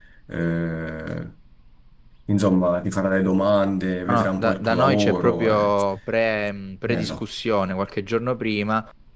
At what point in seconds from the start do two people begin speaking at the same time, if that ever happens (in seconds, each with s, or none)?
4.1 s